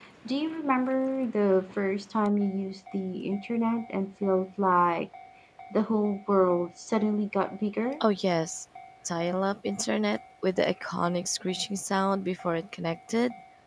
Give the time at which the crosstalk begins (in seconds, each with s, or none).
none